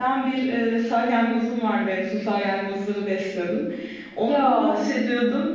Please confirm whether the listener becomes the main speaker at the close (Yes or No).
No